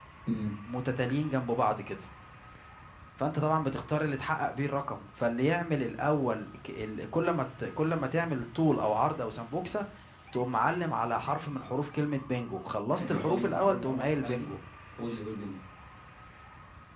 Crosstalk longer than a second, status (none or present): present